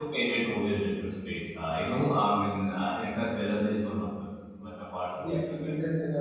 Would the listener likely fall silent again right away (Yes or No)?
No